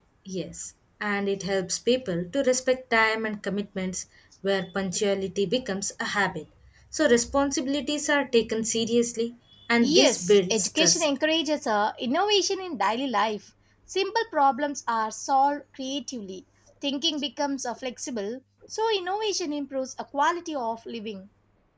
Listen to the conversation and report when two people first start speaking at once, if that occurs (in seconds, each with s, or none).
9.8 s